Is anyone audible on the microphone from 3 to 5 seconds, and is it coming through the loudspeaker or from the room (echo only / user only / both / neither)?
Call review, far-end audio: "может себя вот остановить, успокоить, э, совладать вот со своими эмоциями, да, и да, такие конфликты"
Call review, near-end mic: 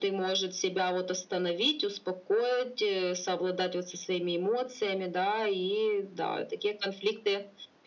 echo only